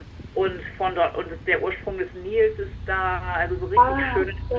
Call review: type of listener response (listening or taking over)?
listening